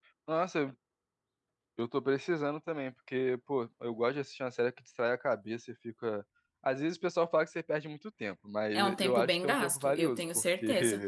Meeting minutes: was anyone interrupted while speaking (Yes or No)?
Yes